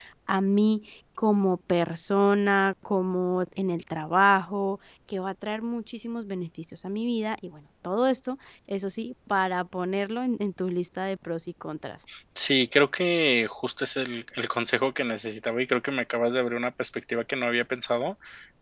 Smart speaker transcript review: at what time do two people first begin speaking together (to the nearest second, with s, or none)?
none